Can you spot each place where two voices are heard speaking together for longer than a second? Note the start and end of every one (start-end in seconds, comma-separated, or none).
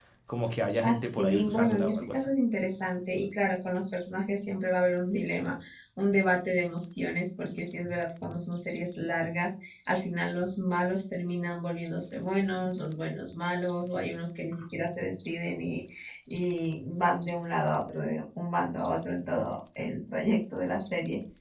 0.8-2.2